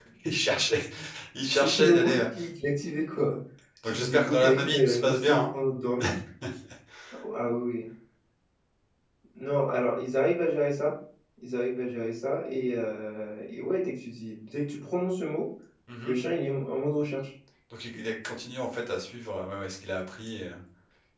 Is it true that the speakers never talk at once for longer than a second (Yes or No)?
No